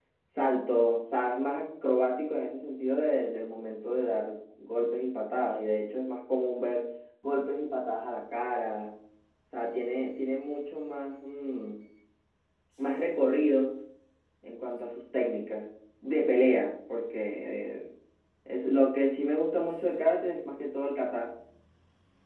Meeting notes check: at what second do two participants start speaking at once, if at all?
none

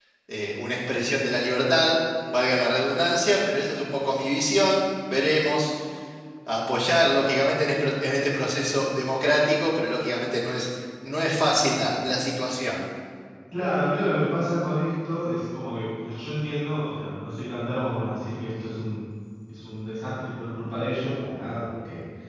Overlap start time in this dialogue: none

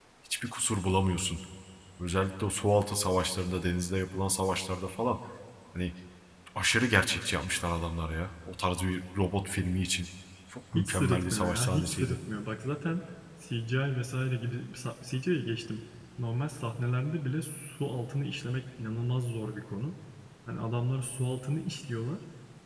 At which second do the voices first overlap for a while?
11 s

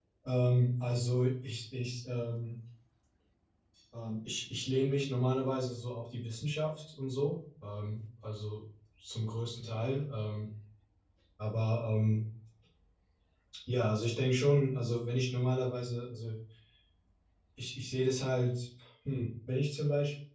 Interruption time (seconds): none

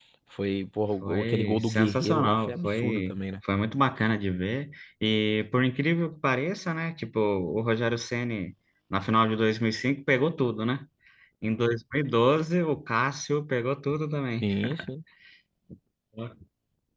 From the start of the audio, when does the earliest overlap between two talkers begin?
1 s

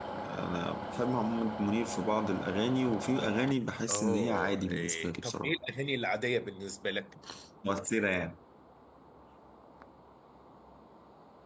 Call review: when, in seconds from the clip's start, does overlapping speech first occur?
4 s

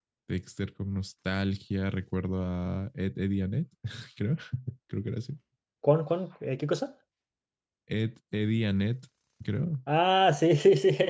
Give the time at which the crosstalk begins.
none

